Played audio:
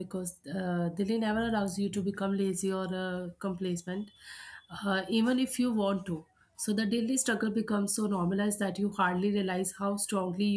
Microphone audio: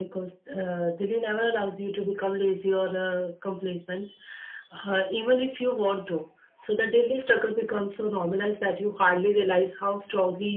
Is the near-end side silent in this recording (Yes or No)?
Yes